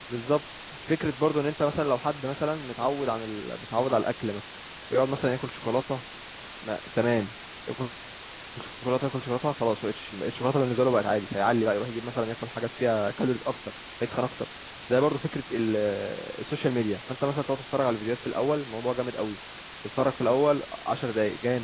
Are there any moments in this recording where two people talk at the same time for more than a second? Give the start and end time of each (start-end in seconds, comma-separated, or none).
none